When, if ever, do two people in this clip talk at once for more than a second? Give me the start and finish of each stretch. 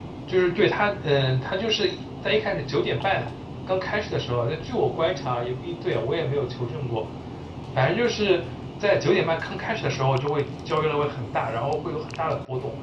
none

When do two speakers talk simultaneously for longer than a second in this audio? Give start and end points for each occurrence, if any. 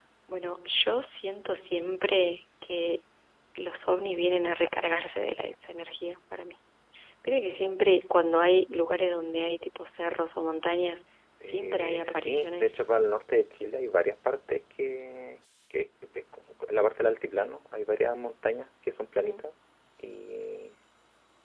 11.4-12.8

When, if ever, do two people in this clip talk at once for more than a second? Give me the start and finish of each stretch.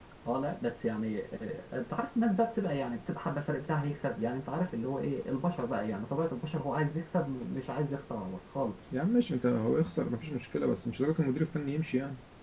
none

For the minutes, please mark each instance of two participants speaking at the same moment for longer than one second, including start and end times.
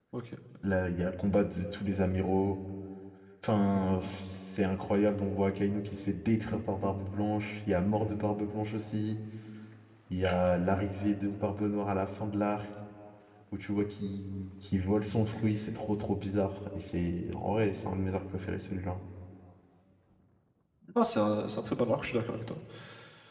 none

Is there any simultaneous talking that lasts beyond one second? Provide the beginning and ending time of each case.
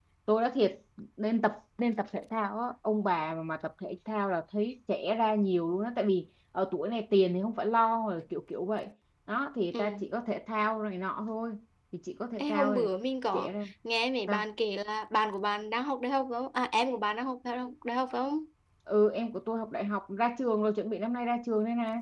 none

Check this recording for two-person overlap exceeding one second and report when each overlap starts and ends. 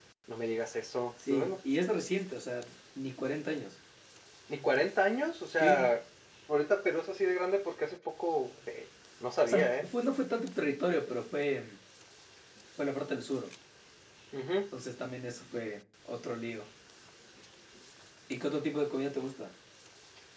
none

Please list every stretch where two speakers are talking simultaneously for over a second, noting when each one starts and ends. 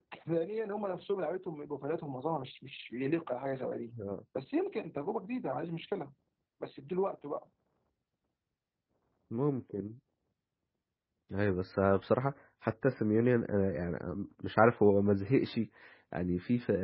none

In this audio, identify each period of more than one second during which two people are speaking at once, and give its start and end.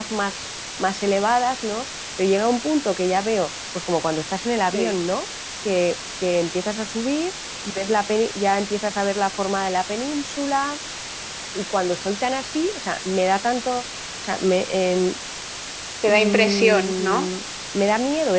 16.1-17.3

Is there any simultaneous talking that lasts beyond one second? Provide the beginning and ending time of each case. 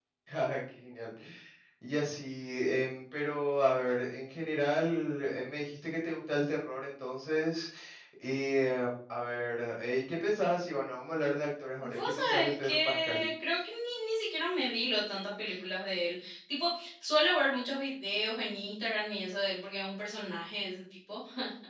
11.8-13.2

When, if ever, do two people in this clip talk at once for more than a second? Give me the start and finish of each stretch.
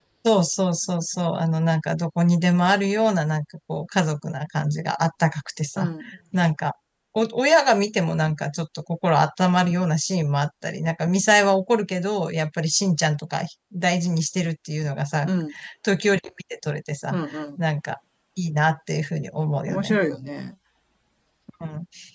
none

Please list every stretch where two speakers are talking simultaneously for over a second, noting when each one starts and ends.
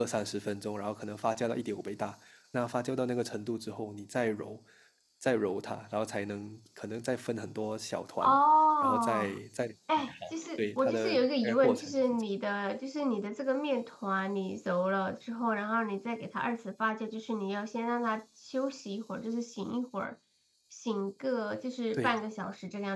10.6-12.2

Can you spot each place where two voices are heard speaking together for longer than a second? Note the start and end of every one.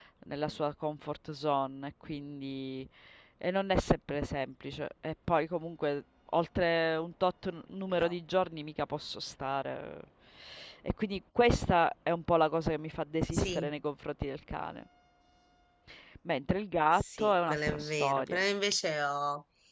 16.9-18.4

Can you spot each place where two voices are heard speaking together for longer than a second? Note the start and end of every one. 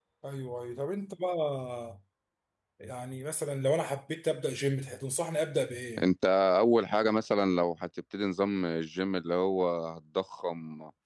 none

